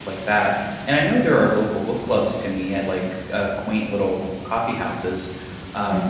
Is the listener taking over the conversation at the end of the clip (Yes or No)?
Yes